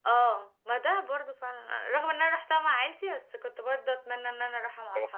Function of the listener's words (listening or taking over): taking over